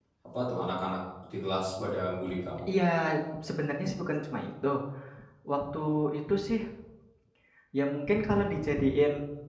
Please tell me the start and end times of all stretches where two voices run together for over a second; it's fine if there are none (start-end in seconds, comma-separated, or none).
none